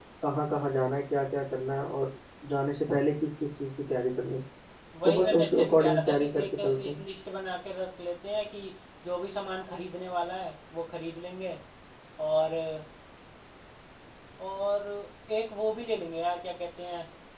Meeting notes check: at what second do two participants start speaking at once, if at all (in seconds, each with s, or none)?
5.0 s